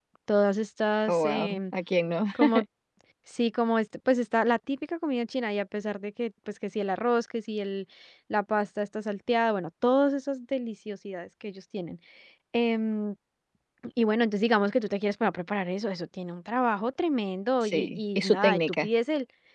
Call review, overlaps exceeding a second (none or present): present